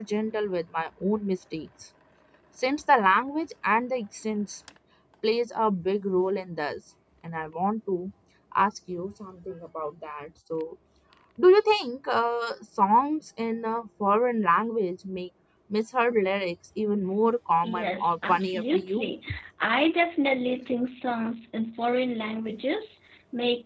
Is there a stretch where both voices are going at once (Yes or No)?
Yes